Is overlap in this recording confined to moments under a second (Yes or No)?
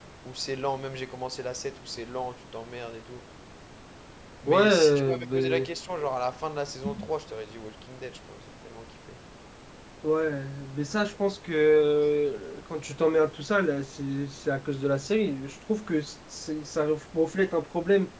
No